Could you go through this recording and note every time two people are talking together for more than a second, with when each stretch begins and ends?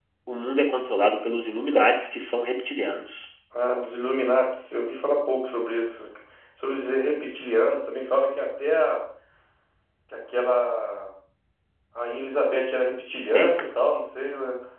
none

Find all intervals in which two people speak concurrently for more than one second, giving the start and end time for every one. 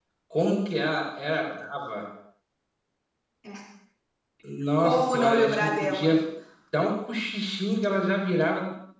4.8-6.1

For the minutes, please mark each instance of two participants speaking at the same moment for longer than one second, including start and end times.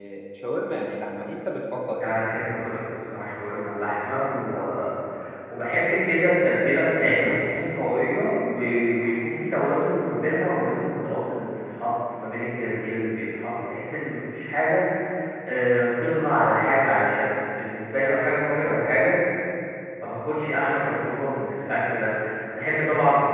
none

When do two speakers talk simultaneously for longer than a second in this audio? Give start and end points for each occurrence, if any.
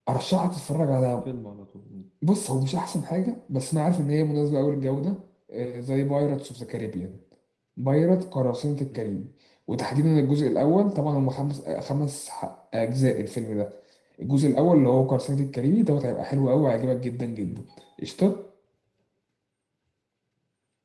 none

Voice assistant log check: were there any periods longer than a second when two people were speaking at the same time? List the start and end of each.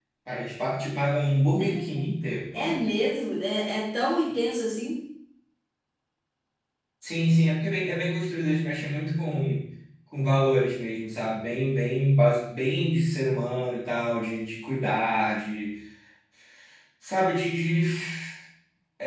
none

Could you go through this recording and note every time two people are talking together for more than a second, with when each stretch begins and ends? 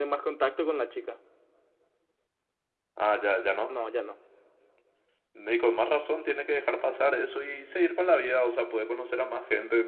none

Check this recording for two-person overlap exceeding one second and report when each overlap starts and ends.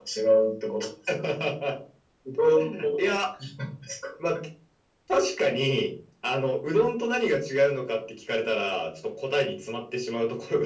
none

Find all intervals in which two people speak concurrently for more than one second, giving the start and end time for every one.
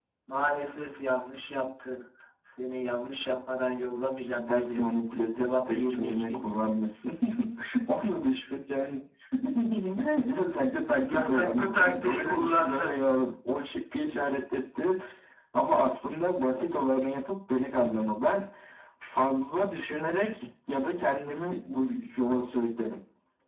5.4-6.6, 11.1-13.1

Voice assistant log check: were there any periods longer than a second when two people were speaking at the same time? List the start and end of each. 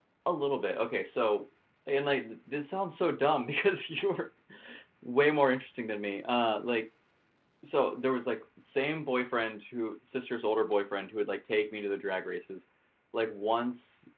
none

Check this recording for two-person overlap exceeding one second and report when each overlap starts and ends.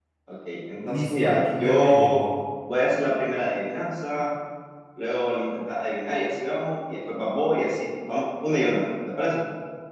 0.8-2.2

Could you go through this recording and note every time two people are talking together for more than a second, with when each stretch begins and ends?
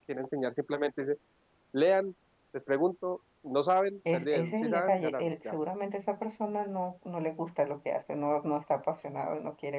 4.1-5.5

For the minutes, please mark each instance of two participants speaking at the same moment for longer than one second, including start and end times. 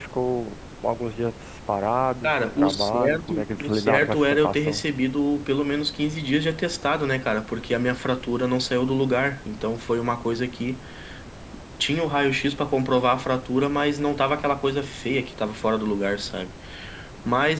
2.2-4.8

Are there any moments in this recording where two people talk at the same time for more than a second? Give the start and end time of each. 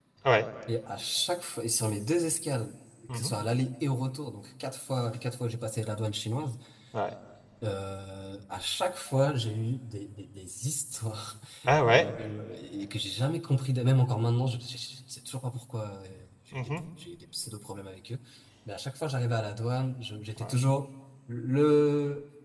none

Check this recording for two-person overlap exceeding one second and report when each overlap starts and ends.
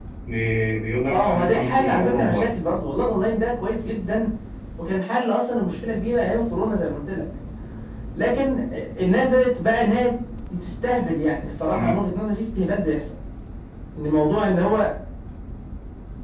1.1-2.5

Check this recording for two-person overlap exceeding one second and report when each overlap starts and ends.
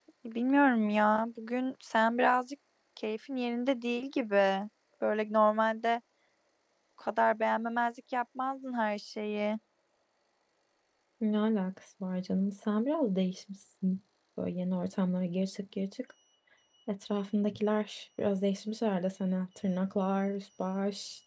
none

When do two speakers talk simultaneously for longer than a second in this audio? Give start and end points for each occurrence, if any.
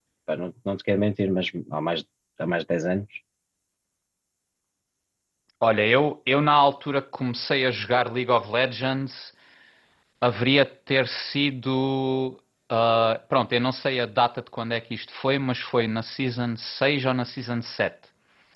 none

